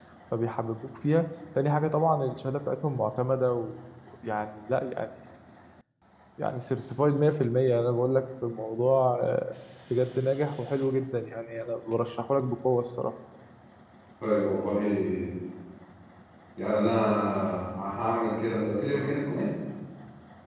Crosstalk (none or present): none